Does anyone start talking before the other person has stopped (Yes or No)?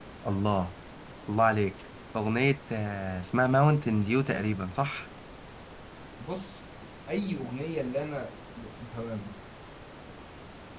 No